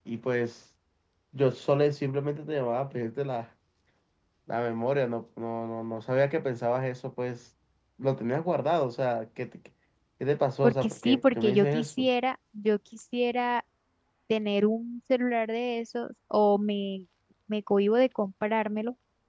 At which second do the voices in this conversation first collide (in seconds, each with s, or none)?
10.6 s